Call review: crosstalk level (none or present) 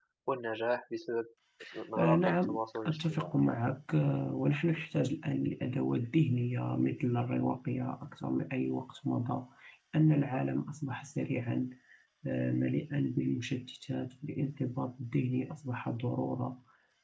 present